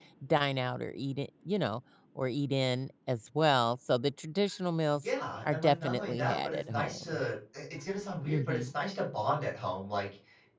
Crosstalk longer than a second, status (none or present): present